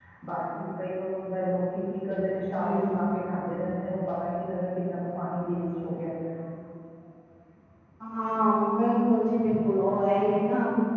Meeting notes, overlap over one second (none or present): none